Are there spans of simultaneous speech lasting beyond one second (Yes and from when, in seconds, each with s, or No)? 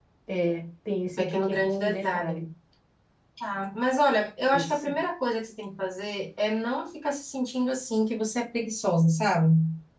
Yes, from 1.0 s